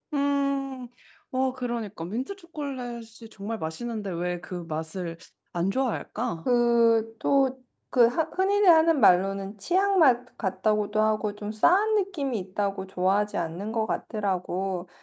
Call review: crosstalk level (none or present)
none